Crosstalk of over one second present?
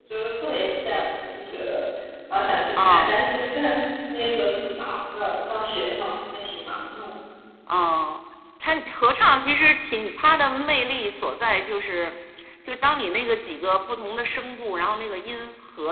No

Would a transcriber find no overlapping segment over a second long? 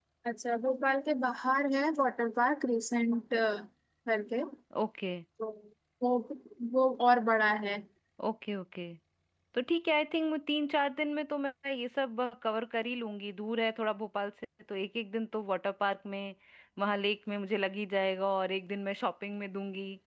Yes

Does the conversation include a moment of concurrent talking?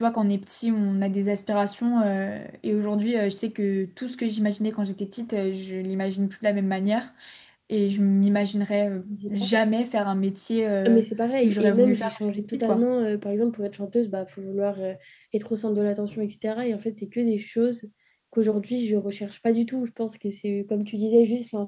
Yes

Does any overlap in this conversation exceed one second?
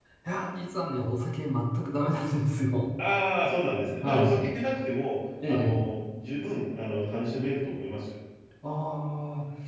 No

